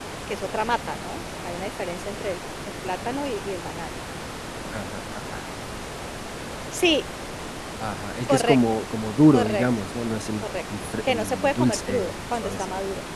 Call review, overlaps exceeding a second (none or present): present